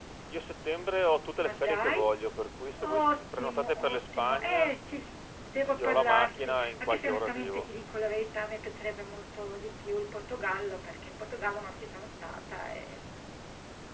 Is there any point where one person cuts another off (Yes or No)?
Yes